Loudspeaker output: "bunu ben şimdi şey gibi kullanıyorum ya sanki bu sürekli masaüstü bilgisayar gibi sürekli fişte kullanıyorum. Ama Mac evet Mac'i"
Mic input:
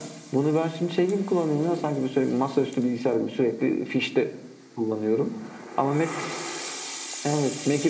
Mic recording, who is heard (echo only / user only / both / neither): echo only